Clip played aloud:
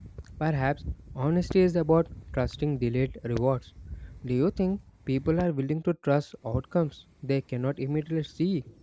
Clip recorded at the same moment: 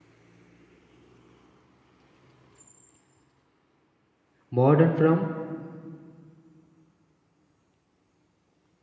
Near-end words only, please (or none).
modern from